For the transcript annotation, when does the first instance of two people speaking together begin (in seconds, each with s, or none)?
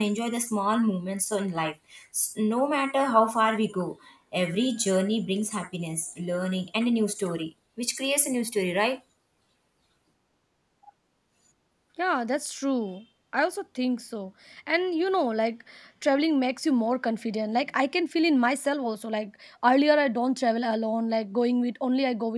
none